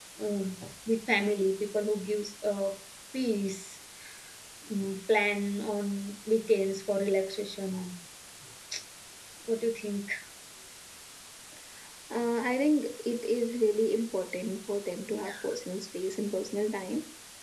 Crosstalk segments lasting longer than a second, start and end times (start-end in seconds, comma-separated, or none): none